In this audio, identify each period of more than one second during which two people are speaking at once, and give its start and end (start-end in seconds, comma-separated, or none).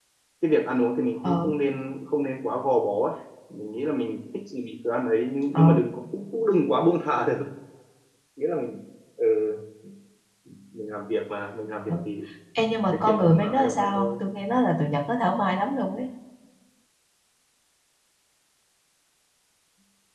12.9-14.2